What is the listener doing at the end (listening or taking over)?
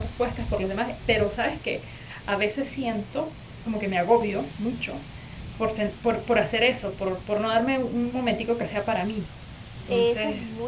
taking over